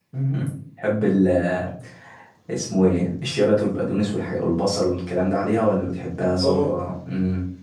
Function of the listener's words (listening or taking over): listening